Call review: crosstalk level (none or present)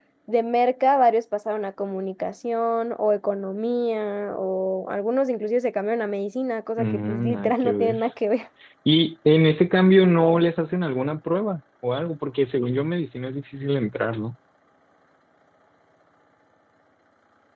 present